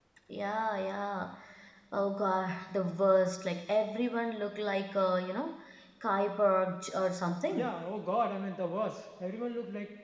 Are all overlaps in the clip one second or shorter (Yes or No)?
Yes